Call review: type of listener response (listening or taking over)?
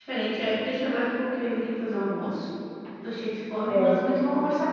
listening